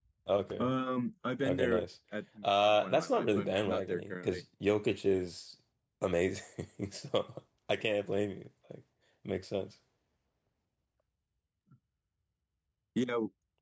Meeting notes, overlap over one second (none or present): present